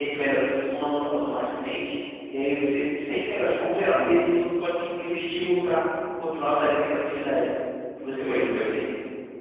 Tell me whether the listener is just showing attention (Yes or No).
No